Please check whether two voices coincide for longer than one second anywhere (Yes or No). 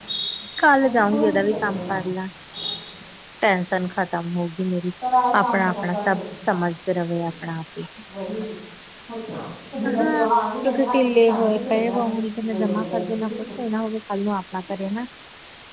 Yes